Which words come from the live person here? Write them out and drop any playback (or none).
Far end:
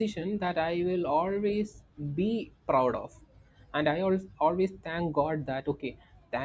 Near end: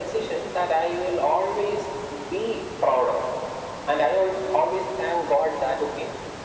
none